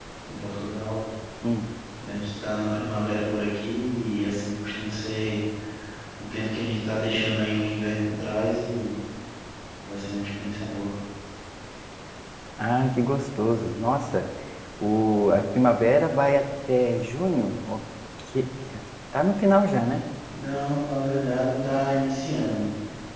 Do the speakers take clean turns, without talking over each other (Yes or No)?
Yes